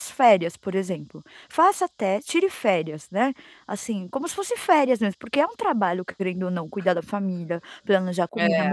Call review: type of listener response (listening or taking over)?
listening